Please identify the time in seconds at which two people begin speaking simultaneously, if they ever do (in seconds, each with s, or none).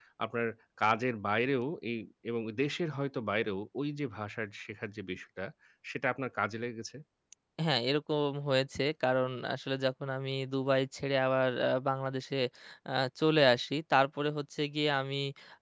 none